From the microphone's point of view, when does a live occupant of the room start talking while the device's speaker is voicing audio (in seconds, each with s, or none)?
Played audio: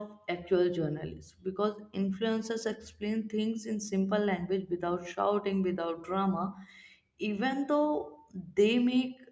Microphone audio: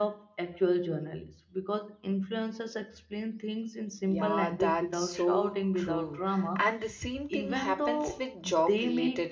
4.1 s